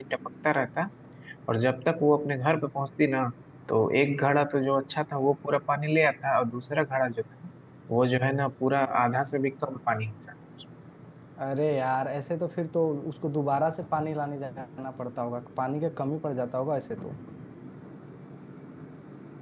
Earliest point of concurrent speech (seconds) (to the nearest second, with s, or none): none